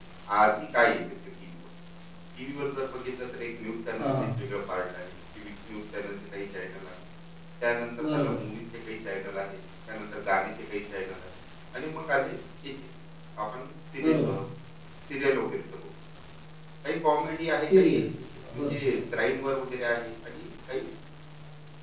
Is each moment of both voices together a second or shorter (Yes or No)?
Yes